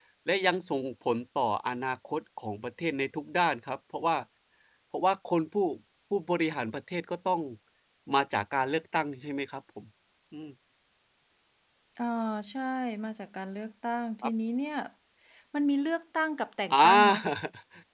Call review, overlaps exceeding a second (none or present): none